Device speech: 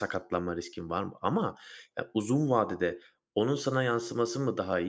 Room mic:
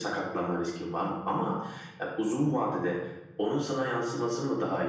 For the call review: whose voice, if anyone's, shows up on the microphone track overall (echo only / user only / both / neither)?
echo only